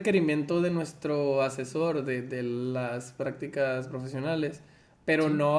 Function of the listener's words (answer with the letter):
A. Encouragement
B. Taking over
A